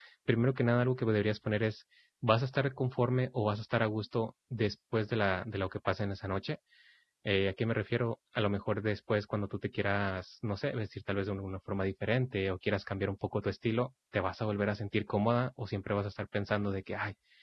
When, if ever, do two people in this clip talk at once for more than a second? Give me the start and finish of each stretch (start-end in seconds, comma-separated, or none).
none